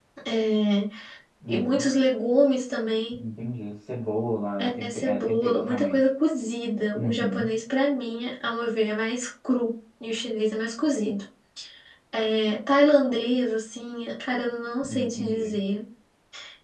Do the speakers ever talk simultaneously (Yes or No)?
Yes